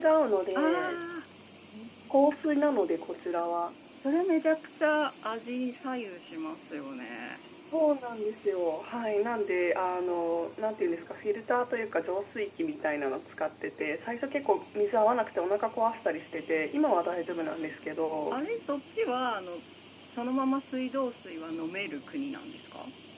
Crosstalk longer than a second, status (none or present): none